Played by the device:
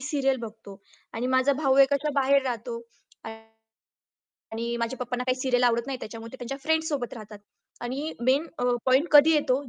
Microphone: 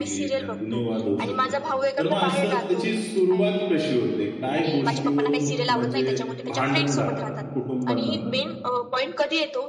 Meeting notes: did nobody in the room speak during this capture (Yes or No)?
No